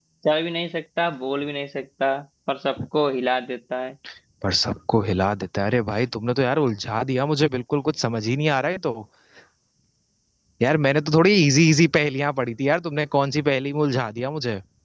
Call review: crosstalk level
none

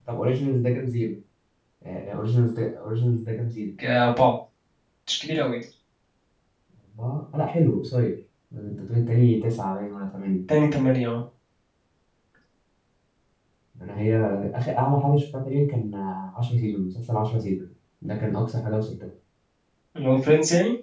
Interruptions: none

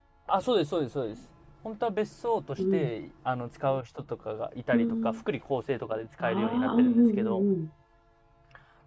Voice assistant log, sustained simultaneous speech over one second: present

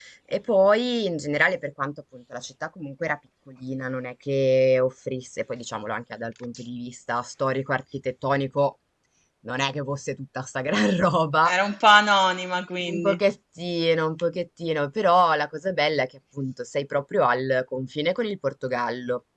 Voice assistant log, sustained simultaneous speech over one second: none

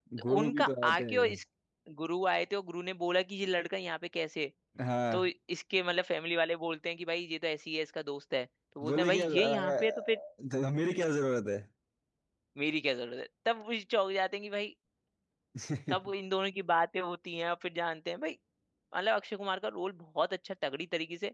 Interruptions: present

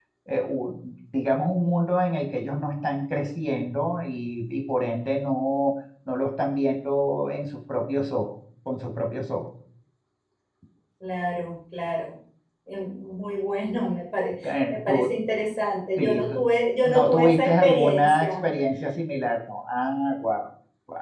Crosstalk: present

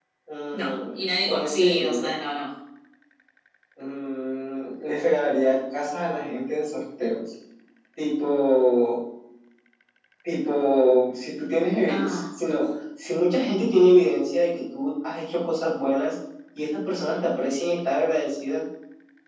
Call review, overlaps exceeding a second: present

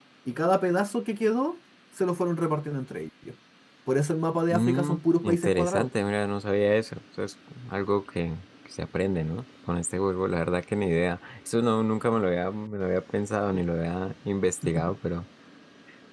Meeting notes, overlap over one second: present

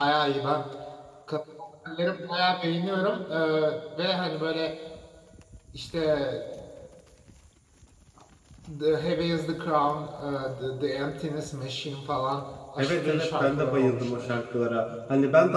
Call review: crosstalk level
present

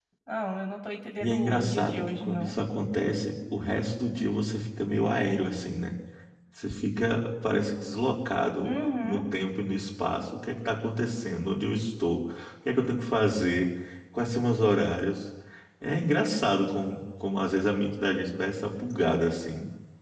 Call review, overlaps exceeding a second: present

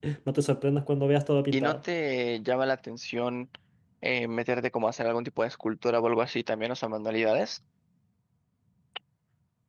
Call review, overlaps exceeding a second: none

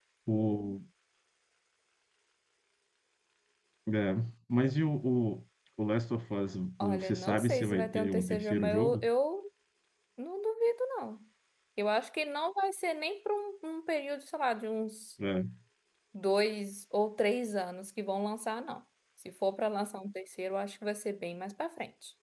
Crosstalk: present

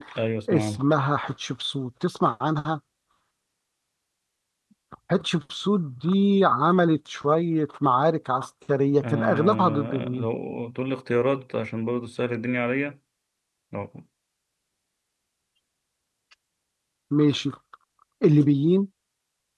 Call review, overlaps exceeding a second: present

